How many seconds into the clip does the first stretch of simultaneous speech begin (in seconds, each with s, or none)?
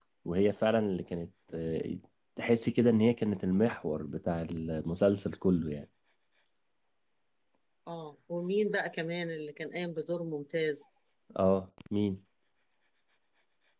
none